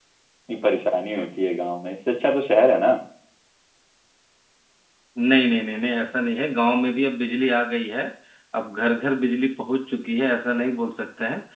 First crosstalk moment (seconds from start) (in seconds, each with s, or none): none